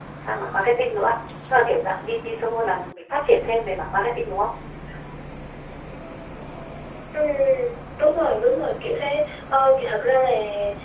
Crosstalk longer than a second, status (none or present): none